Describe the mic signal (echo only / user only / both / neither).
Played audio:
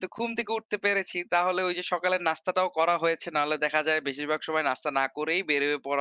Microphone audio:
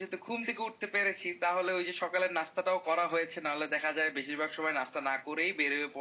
echo only